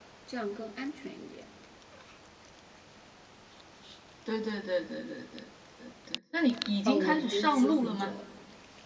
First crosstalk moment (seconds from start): 6.8 s

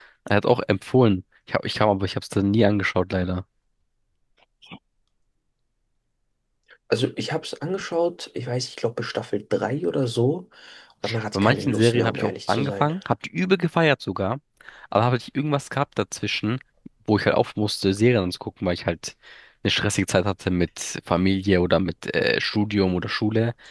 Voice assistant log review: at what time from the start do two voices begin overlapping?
11.3 s

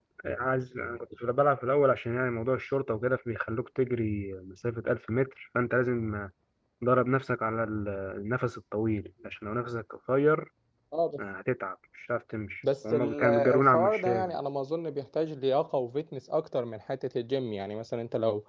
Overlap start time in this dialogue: 12.9 s

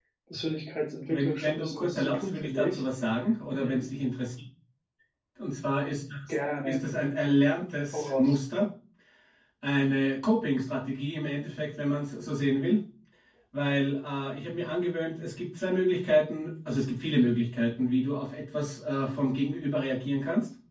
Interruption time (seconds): 1.1 s

